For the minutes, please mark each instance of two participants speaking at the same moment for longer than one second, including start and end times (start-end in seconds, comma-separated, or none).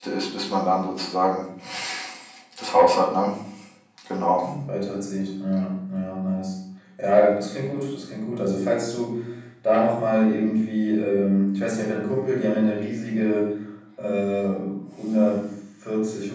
none